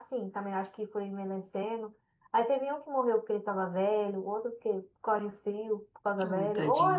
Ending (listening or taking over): listening